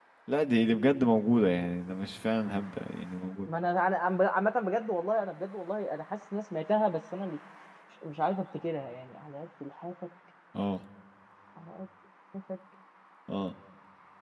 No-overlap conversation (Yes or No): Yes